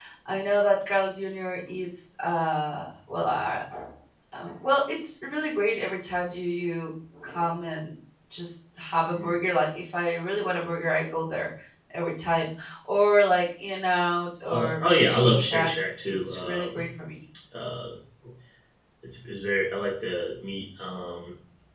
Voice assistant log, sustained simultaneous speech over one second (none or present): present